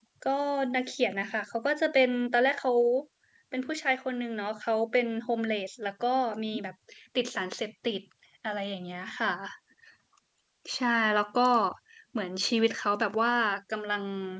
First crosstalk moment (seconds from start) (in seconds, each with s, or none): none